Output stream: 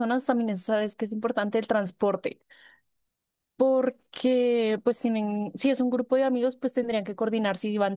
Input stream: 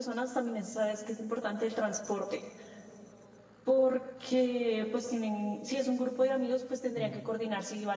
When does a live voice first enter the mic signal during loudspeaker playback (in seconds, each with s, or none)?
7.0 s